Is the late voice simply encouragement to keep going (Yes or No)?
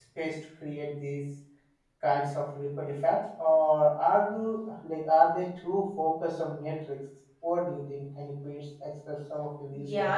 No